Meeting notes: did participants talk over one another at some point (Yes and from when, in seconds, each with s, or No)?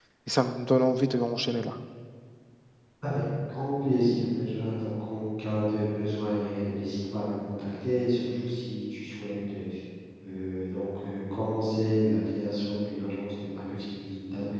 No